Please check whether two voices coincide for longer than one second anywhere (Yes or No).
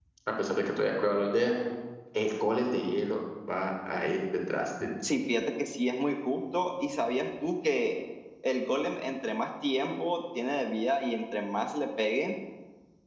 No